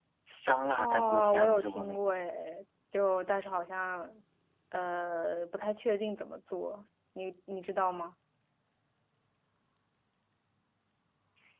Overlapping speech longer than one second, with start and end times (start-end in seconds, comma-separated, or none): 0.8-2.1